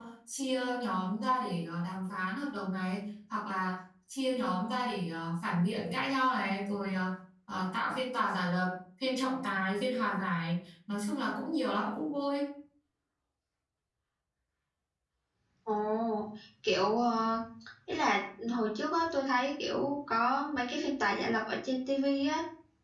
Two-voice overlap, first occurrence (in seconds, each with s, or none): none